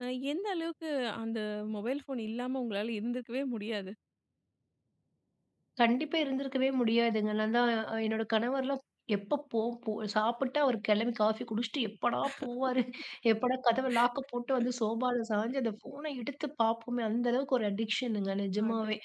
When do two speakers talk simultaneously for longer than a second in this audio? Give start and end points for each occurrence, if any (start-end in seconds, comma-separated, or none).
none